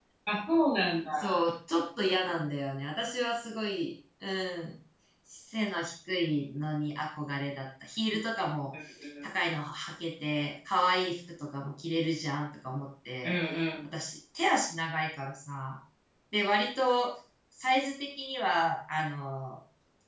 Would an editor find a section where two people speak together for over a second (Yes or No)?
No